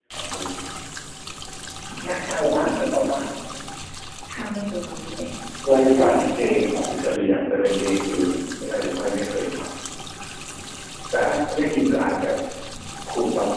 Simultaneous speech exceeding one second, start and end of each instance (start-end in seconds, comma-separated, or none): 5.7-6.9